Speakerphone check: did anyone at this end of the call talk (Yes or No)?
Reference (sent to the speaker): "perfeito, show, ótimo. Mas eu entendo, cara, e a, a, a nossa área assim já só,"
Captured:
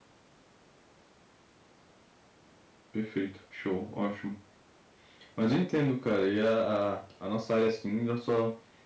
No